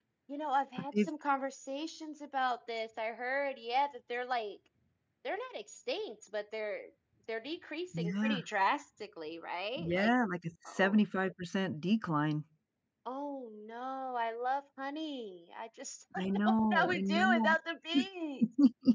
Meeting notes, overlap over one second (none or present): present